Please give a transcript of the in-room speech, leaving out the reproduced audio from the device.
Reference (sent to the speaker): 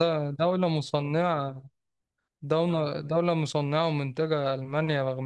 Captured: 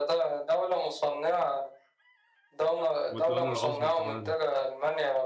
والدول العظمى كمان

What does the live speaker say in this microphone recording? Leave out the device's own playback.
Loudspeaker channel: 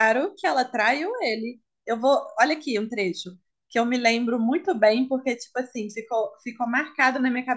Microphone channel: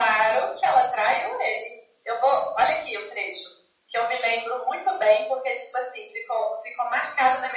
none

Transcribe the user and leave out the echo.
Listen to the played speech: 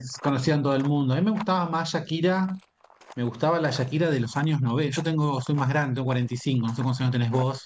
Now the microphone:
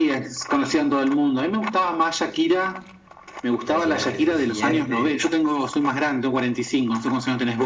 canciones que se sienten,

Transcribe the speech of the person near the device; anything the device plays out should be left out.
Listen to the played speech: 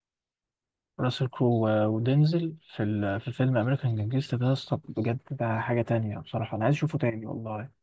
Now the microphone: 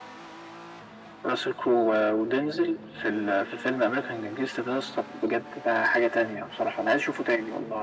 none

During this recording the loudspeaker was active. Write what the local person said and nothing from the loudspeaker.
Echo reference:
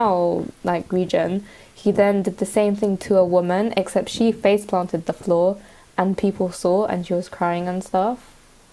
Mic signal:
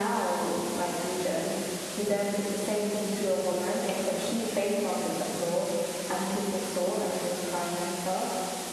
none

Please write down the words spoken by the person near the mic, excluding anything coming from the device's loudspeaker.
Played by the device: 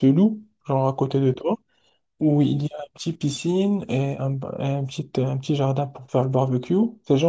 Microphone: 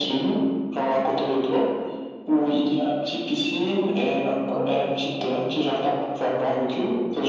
Oh, Spider-Man.

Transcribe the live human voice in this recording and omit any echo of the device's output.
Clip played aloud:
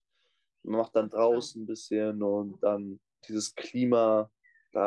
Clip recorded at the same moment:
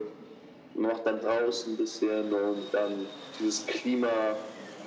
none

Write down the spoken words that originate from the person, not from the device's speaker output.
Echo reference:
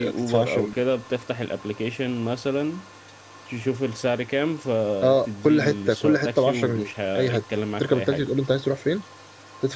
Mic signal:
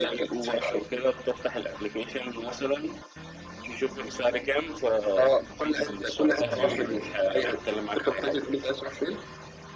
ايوه ايوه

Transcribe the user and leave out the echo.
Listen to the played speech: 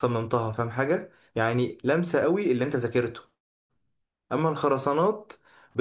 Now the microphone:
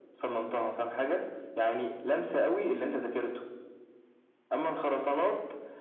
none

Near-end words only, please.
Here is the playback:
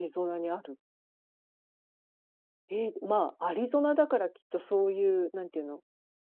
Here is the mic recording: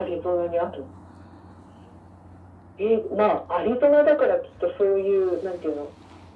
none

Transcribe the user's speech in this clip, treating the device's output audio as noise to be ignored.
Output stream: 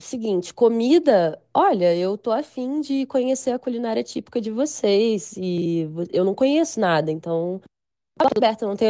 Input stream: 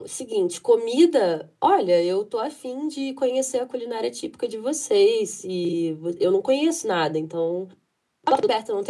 none

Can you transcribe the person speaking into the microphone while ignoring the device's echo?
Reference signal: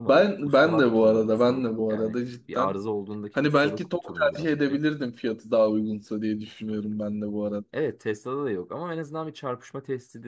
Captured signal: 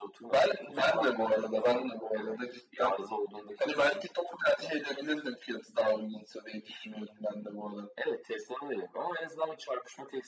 none

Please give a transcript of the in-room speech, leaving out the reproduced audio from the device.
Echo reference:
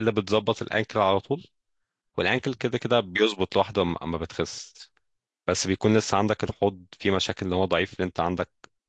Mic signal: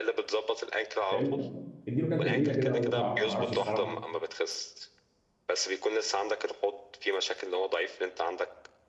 فاهمني يلا اديله كام تمرينه كده لو انت تعرف انا ما اعرفش الصراحه

